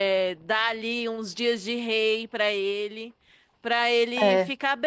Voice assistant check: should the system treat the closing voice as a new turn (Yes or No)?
No